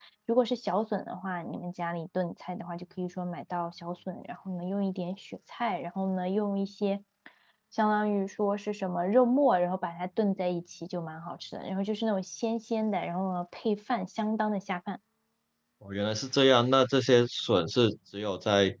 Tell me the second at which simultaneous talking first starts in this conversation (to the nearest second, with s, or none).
none